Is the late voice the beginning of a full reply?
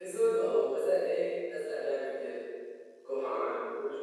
Yes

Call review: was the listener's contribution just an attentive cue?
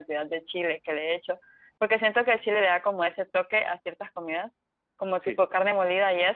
Yes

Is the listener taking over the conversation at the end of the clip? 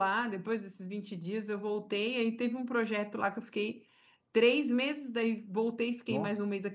No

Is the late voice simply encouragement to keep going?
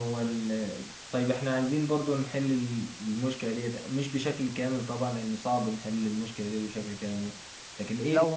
Yes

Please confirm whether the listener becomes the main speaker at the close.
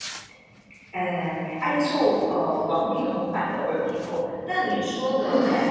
No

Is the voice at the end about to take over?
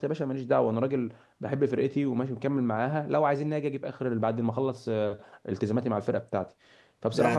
Yes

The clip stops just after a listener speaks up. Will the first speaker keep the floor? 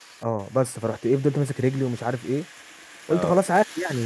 Yes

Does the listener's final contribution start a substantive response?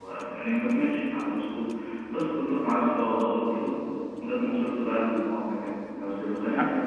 No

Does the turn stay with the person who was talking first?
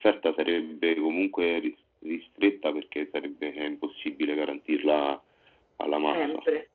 Yes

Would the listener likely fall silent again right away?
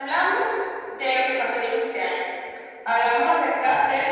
Yes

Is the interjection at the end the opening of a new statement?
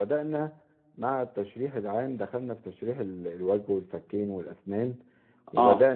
No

